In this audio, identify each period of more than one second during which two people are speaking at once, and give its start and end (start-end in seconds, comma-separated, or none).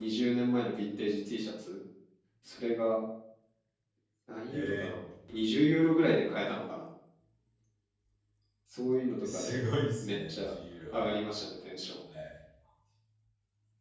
none